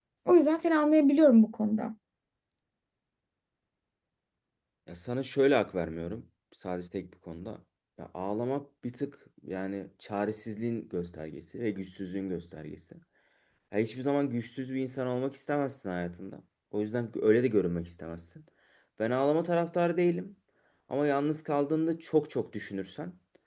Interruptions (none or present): none